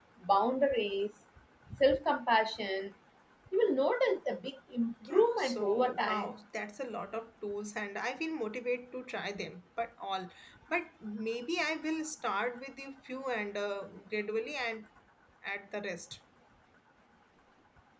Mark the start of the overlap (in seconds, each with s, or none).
5.0 s